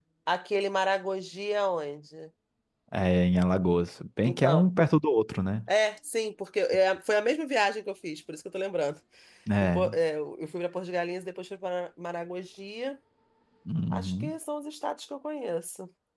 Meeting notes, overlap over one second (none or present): none